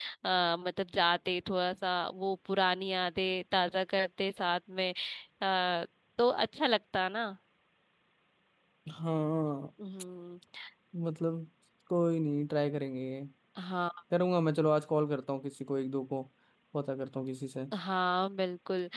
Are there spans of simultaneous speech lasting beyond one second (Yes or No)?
No